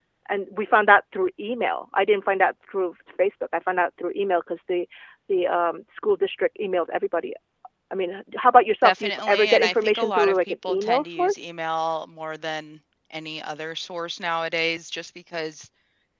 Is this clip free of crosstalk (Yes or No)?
No